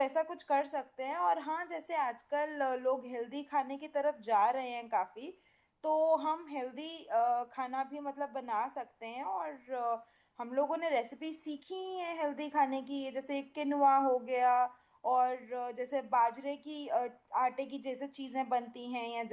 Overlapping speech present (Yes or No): No